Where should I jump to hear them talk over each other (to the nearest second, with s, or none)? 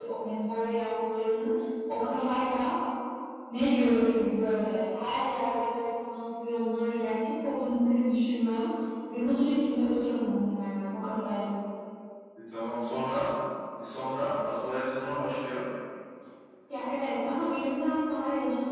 none